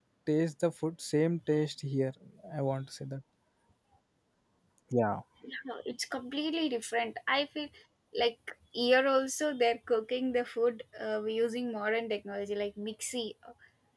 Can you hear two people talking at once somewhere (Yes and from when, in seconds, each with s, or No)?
No